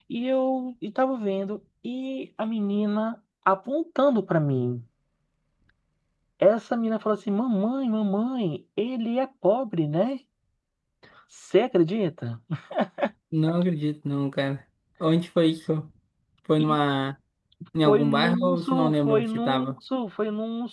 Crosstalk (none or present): present